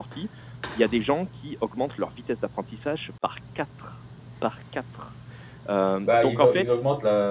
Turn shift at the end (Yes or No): Yes